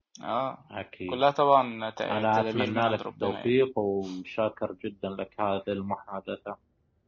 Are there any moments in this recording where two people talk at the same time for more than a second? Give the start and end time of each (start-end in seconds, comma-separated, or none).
2.1-3.6